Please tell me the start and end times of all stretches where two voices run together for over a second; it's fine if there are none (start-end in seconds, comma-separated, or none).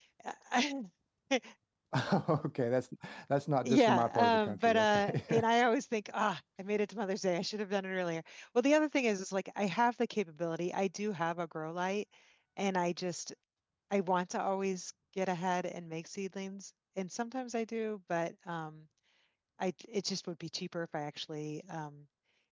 3.6-5.4